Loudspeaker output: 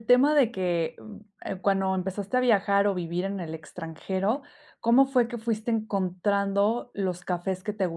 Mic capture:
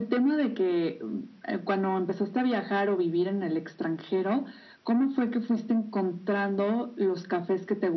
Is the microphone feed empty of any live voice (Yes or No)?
Yes